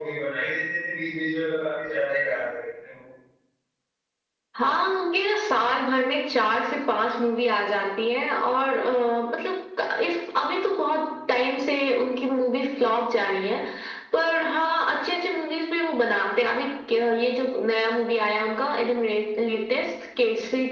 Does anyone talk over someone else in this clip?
No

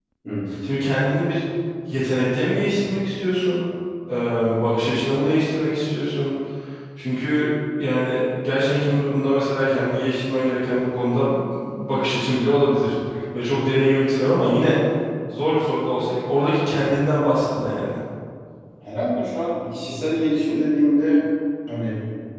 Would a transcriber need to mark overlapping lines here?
No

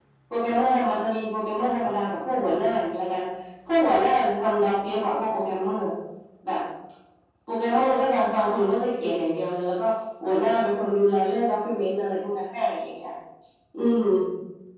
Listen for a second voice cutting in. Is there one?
No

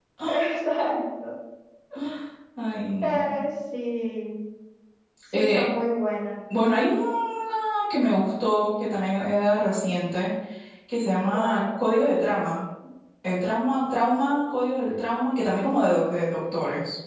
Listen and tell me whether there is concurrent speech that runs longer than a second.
No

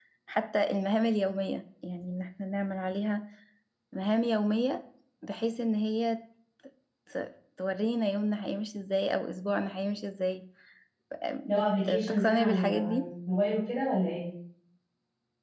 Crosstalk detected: Yes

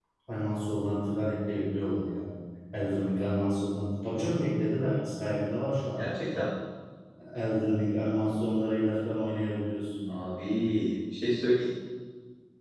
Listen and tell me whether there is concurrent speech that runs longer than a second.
No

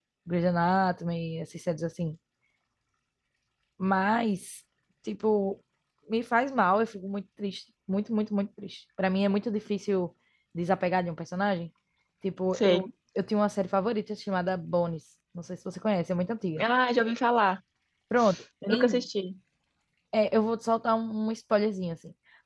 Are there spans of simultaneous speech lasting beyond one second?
No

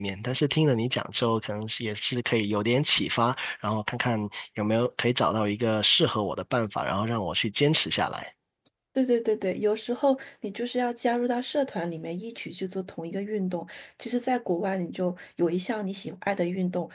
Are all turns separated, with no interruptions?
Yes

